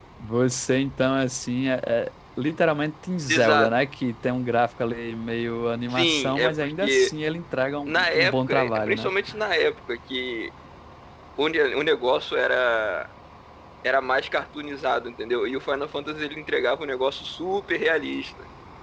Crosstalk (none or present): present